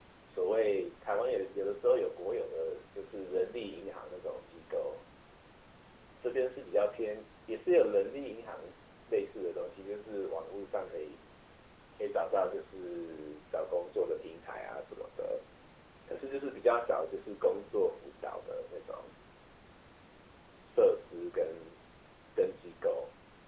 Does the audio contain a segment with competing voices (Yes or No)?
No